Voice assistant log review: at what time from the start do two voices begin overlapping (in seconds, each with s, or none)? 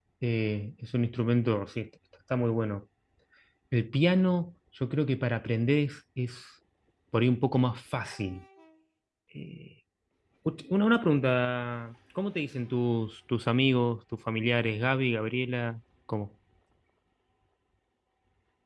none